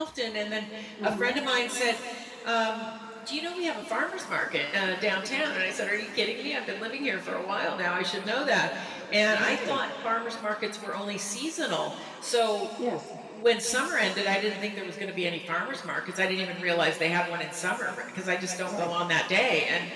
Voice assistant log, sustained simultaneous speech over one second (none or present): none